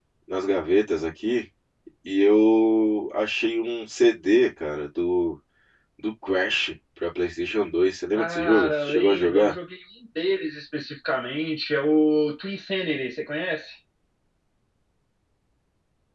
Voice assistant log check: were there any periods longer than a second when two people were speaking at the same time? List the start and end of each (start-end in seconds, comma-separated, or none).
8.1-9.5